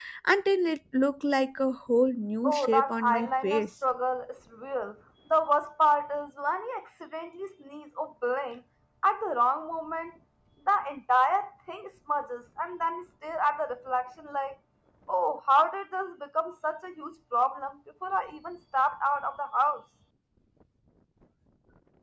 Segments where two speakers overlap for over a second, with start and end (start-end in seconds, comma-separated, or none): 2.4-3.6